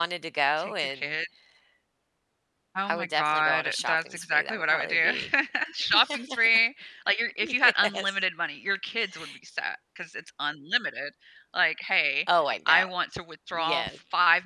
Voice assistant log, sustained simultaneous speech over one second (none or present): present